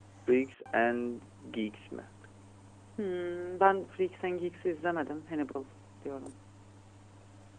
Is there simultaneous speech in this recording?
No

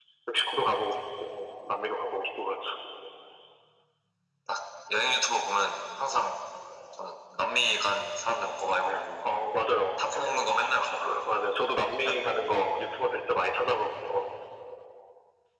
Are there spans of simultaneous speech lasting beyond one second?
No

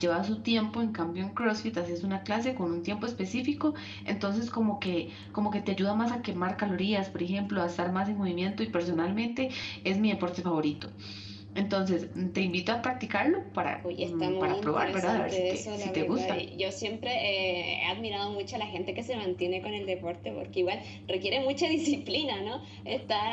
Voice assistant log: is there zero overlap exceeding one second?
No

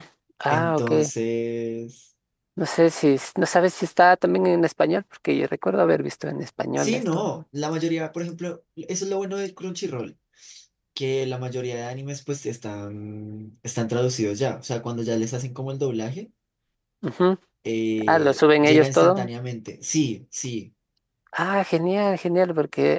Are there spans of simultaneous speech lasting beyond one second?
Yes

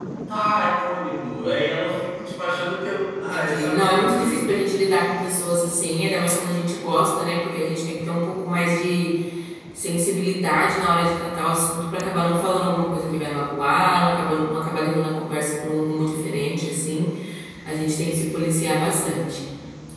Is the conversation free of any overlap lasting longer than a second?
No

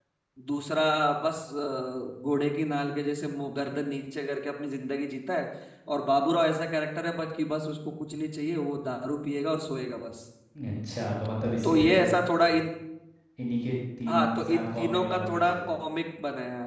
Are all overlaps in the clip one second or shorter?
No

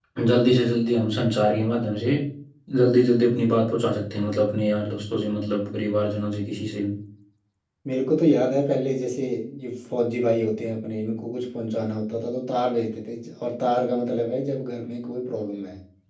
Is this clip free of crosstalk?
Yes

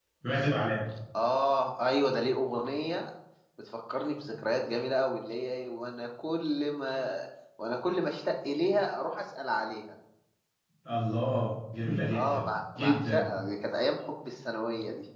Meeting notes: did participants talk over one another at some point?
Yes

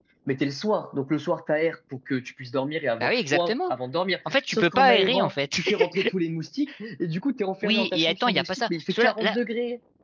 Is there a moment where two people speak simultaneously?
Yes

